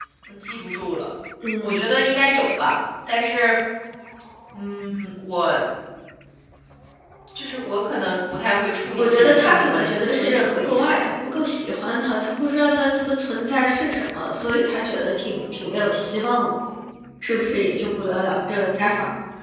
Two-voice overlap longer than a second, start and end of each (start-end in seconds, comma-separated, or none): 9.0-10.9